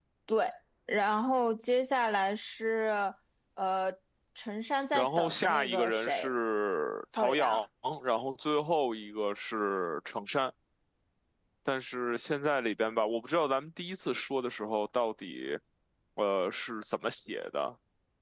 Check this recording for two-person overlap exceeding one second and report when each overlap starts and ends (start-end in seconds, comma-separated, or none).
4.9-6.3